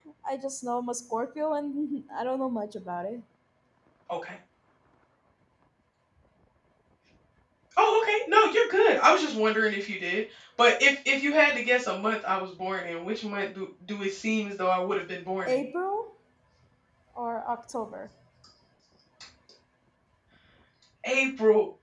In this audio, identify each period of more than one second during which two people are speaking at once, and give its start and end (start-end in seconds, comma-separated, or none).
none